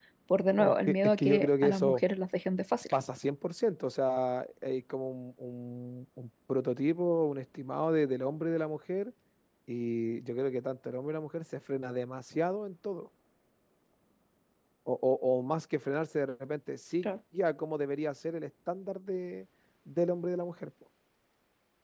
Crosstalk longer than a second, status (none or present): present